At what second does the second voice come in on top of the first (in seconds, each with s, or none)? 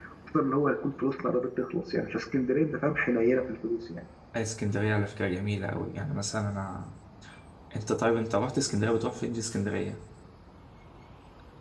none